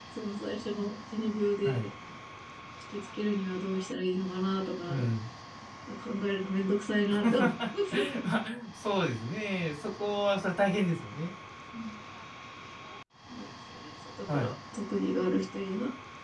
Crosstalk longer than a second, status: none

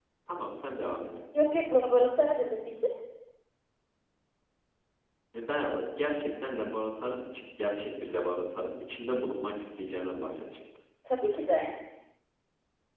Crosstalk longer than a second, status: none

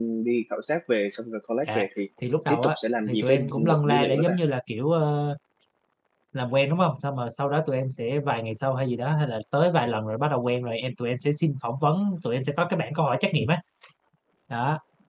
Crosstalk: present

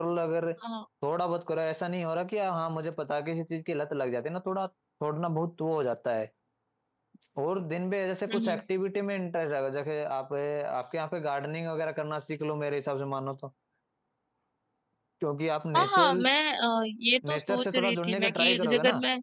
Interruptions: present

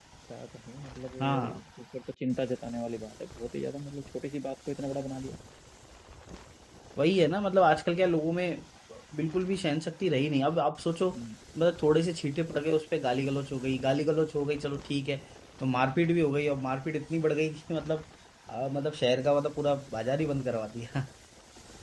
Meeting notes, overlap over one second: none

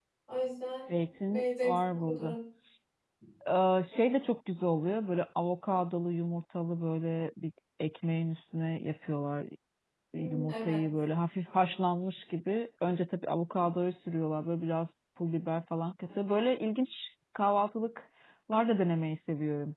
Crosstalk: present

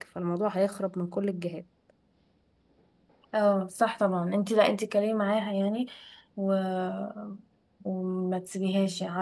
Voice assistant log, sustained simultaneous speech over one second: none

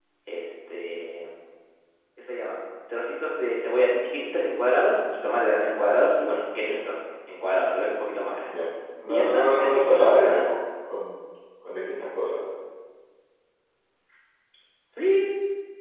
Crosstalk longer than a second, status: present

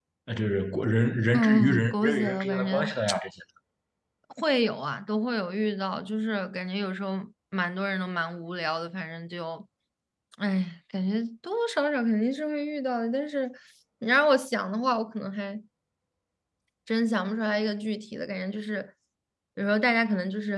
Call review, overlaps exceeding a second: present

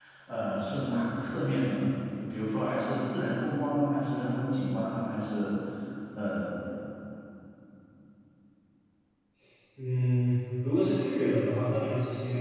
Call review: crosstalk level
none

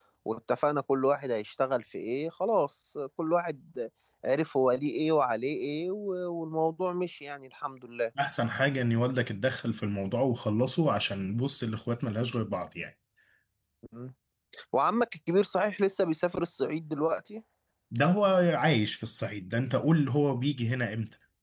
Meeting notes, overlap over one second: none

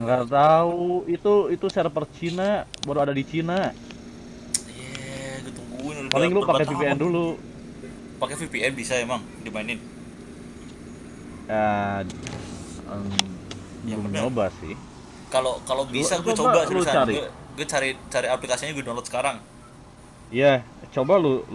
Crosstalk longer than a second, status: present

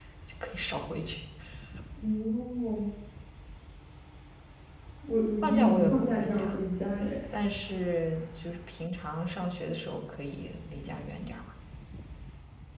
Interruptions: present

